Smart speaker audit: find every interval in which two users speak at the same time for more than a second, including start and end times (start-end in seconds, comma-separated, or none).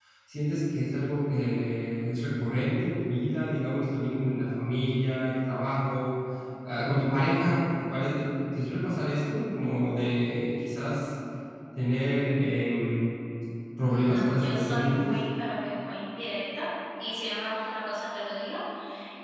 13.9-15.1